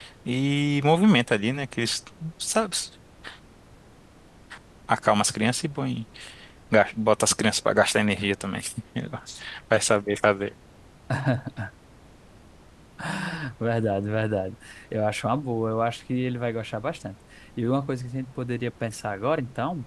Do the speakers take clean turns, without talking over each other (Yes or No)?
Yes